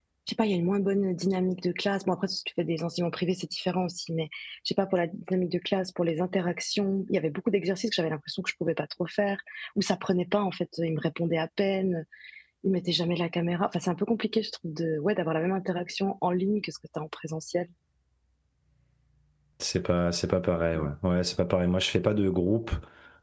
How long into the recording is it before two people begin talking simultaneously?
none

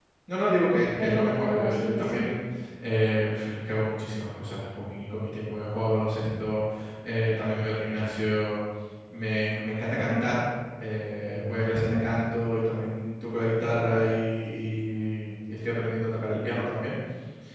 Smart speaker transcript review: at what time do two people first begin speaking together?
1.0 s

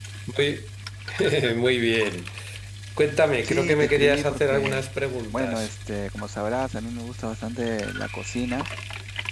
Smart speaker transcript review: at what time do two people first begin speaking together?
3.4 s

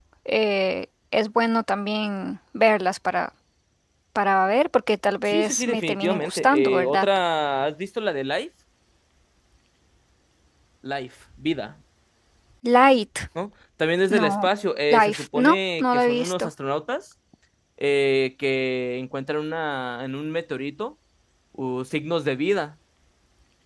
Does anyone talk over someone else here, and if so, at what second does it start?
5.2 s

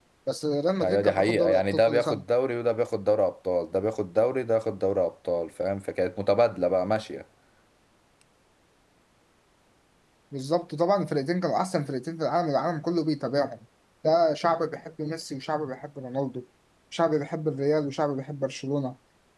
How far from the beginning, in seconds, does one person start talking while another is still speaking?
0.8 s

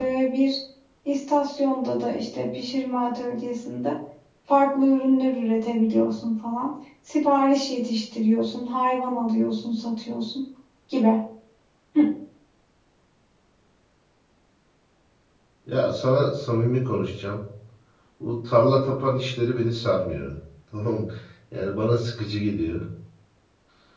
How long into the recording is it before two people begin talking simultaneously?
none

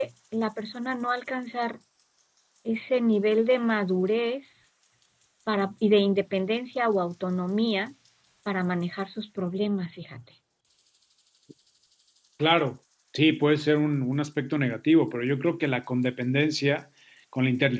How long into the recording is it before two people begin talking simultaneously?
none

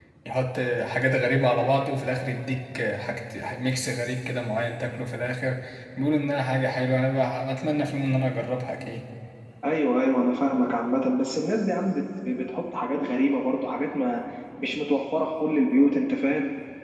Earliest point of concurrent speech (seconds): none

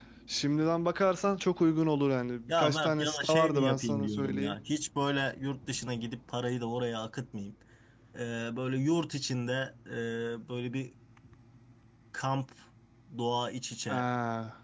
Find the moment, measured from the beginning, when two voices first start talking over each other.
2.5 s

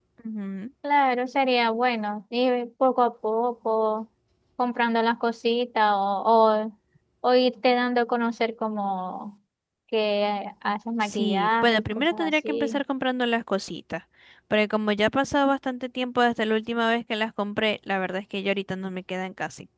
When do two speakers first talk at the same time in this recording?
11.0 s

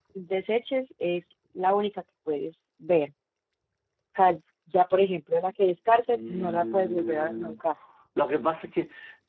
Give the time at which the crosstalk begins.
6.1 s

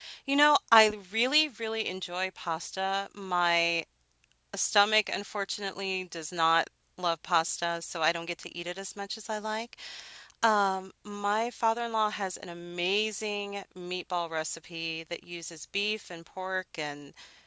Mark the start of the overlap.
none

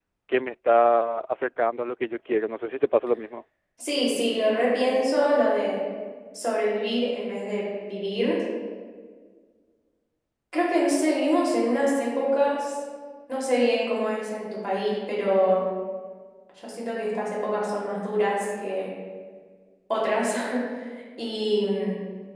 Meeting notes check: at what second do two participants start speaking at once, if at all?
none

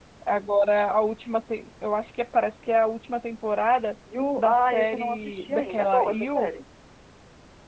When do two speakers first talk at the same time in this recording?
4.4 s

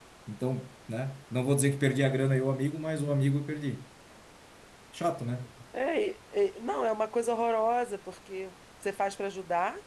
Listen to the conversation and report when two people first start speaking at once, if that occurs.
none

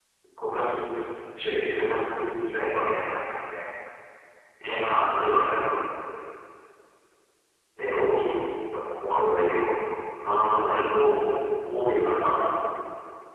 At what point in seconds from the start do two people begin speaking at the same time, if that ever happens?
none

